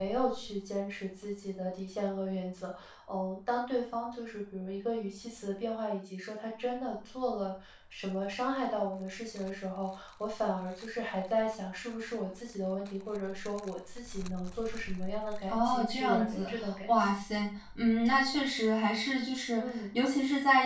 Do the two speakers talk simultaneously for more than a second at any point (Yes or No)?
Yes